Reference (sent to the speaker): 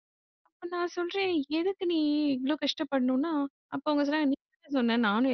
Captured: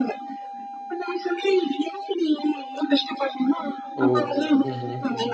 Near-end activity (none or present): present